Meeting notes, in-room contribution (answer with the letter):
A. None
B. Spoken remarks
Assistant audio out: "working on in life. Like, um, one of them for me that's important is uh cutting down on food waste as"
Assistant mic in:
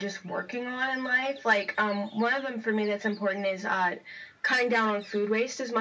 A